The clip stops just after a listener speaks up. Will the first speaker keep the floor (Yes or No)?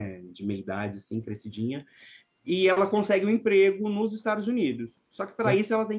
Yes